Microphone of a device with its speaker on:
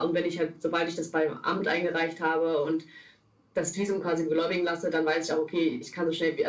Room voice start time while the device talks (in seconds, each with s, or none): none